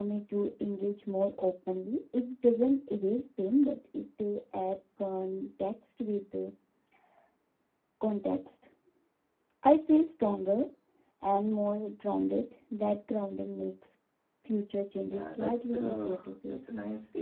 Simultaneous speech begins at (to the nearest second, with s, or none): 15 s